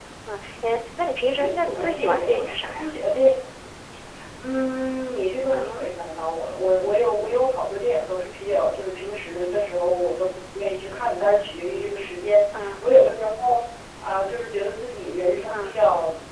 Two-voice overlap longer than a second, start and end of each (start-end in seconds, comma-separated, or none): 1.2-2.9